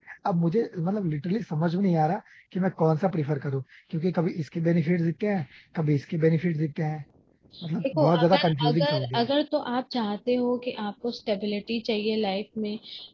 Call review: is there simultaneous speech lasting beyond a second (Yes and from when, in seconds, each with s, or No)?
Yes, from 7.9 s